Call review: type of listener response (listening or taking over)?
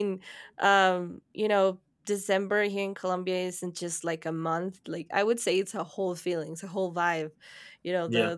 listening